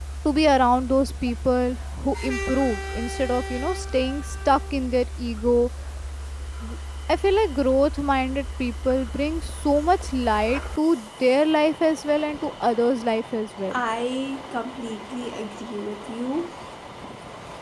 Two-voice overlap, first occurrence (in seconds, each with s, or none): none